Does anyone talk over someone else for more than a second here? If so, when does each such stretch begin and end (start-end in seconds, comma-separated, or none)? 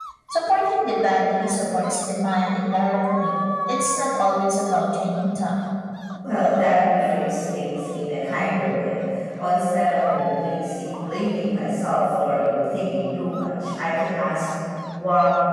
none